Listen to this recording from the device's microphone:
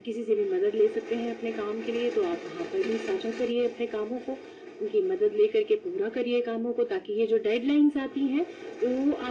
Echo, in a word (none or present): present